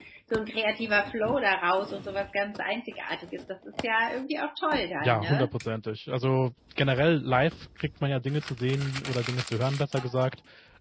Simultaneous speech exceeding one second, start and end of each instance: none

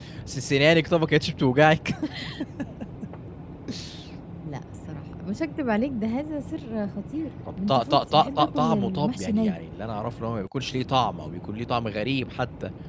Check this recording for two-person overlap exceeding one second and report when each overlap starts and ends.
7.7-9.6

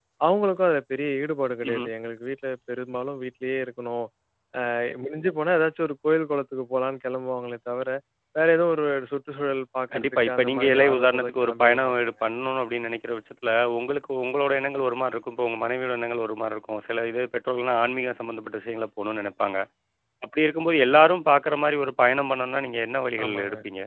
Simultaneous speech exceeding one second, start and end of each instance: 9.9-12.1

